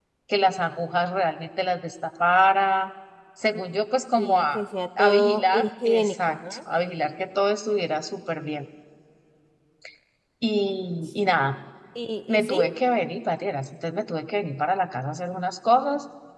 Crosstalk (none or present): present